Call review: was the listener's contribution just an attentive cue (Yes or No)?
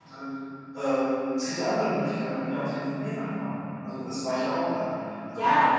Yes